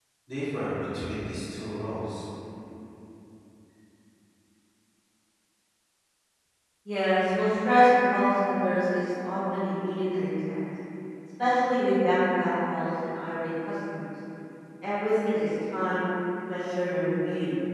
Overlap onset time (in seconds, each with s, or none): none